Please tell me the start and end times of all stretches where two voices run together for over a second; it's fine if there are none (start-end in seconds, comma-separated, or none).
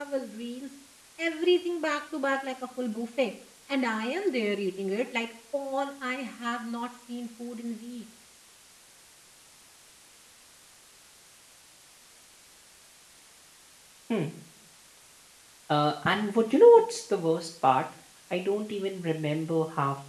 none